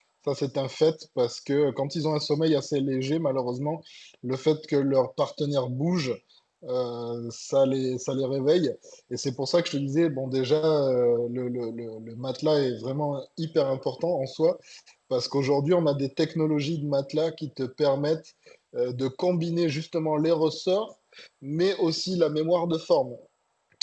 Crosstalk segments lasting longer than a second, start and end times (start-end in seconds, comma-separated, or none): none